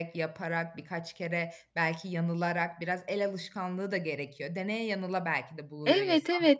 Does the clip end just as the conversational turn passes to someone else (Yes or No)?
Yes